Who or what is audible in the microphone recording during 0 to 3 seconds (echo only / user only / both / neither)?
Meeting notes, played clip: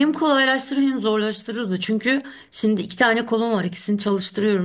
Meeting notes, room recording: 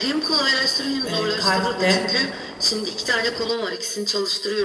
both